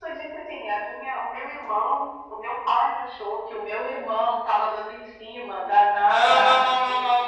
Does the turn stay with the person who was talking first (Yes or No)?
No